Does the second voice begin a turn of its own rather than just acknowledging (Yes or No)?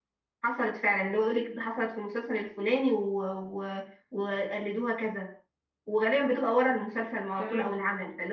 No